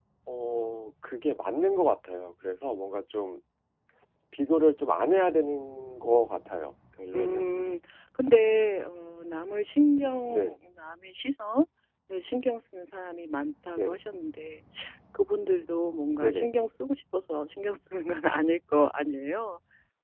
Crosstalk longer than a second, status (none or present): none